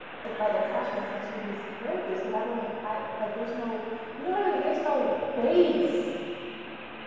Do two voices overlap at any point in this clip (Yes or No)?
No